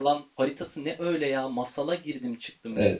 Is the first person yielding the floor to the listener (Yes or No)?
Yes